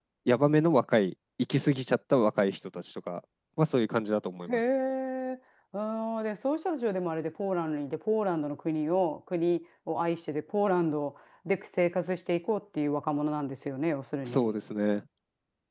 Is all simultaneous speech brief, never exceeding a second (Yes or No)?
Yes